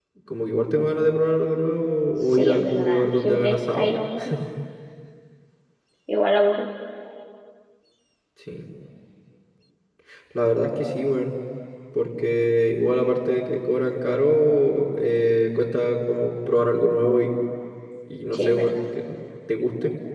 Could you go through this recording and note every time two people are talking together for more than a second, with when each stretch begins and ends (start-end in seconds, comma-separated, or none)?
2.2-3.9